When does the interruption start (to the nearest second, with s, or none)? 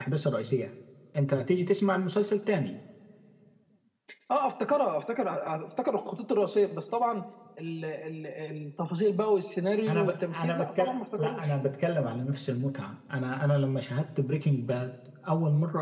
10 s